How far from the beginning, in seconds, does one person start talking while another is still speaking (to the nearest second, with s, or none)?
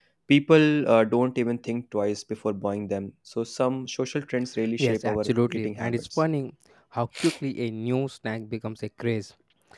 5 s